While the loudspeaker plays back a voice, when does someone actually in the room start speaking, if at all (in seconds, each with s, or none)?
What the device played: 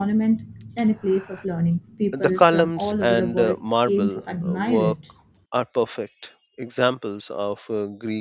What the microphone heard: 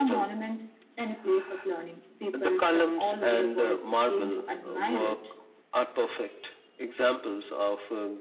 none